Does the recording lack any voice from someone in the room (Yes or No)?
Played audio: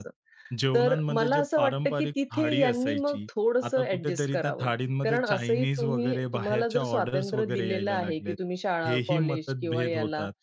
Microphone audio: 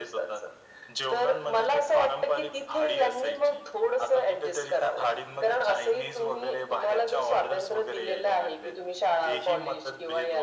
Yes